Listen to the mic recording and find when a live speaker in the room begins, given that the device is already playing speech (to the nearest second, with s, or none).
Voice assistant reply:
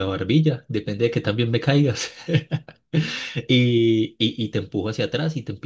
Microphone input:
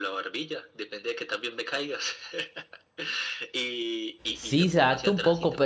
4 s